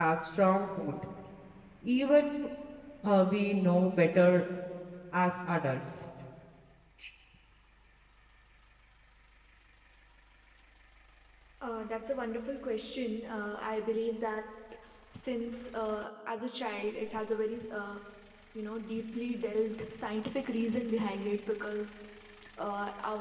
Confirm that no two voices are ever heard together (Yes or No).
Yes